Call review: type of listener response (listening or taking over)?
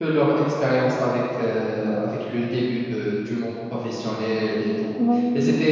listening